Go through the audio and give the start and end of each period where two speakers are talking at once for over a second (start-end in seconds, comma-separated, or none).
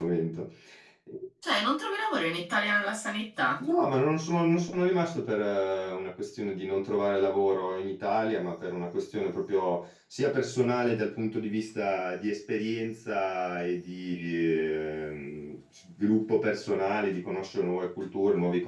none